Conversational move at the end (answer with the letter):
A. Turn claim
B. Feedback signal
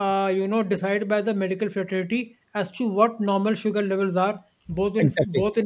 B